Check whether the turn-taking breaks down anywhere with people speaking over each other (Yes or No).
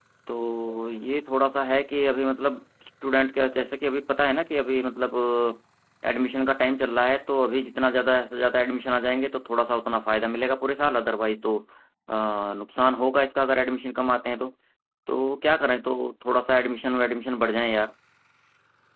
No